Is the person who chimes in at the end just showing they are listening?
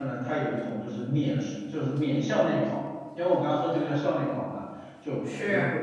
Yes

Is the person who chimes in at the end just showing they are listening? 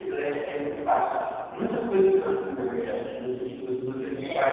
Yes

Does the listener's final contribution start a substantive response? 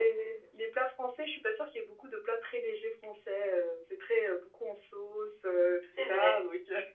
Yes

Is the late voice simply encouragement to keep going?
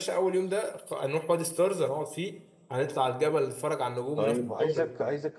No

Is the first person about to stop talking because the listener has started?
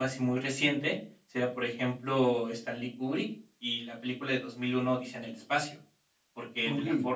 No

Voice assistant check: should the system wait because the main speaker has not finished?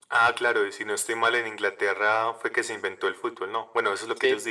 No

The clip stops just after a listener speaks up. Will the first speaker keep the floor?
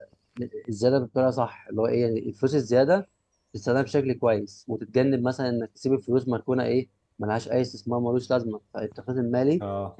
Yes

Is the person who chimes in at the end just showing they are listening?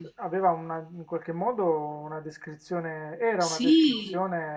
Yes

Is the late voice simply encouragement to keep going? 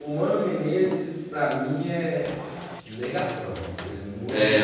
No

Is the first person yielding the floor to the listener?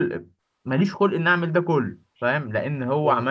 No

